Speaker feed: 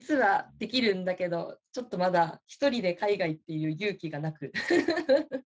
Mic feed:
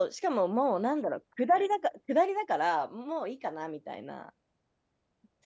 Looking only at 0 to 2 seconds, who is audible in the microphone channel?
user only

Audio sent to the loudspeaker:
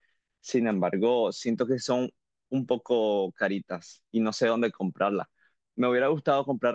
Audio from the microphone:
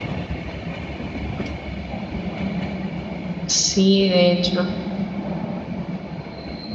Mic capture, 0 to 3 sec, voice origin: neither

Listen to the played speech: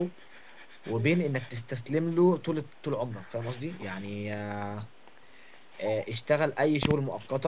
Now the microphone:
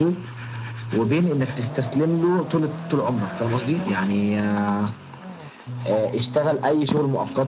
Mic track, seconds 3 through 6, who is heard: echo only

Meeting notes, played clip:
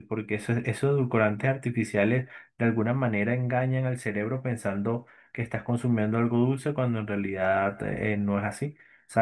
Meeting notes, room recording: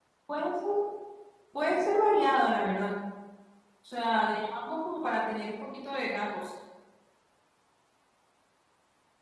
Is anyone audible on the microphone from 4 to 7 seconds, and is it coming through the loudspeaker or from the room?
user only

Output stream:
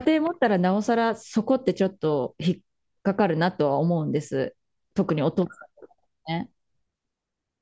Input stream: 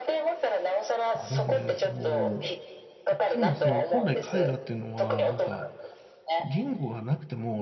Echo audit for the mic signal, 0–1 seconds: echo only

